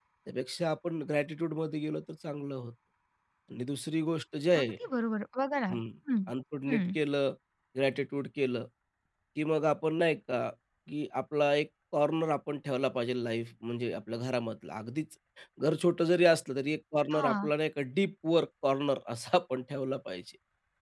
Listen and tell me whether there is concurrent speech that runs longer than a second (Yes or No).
No